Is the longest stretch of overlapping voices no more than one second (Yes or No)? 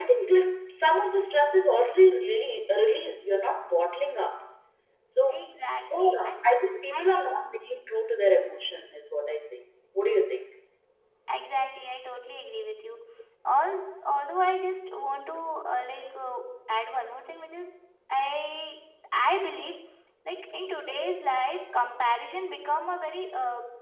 Yes